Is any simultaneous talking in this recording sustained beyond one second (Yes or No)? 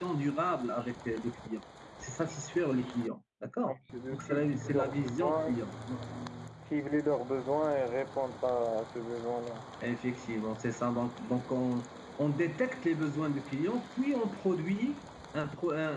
Yes